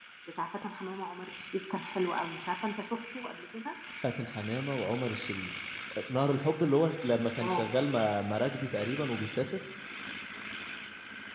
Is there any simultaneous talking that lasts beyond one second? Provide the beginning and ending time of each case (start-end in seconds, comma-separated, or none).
none